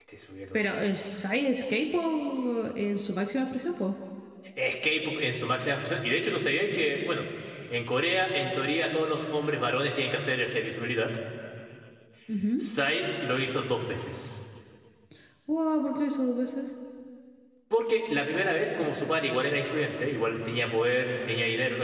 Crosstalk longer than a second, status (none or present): none